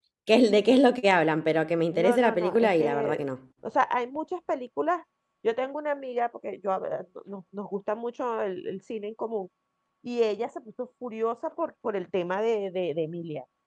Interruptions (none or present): present